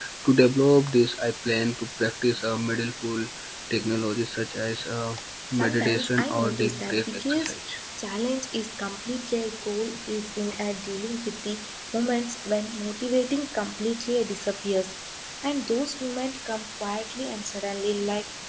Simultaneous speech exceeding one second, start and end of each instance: 5.5-7.5

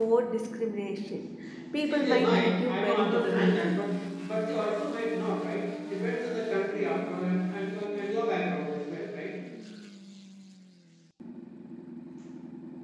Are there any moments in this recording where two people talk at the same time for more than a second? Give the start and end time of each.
1.8-3.8

